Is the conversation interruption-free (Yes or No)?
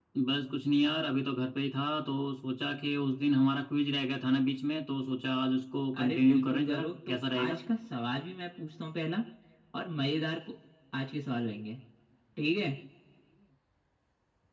No